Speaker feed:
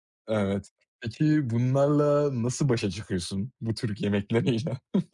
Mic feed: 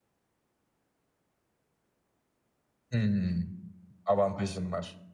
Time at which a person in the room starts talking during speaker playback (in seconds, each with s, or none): 2.9 s